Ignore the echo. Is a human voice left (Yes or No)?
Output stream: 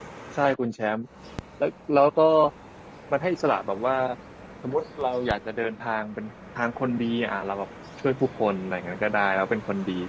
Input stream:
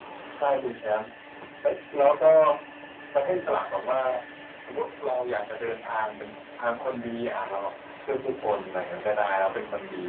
No